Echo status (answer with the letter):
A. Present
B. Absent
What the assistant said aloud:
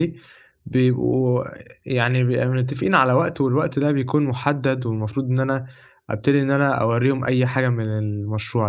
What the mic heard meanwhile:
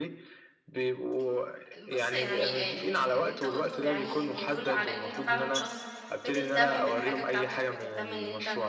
A